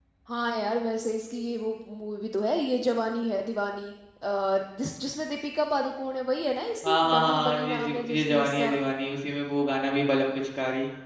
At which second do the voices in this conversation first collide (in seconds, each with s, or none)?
6.8 s